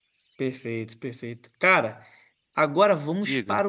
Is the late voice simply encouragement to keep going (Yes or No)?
Yes